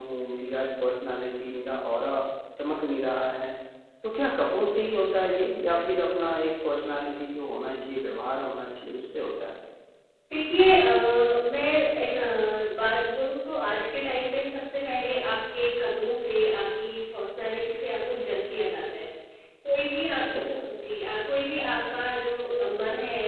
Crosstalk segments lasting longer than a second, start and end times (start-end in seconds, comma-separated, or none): none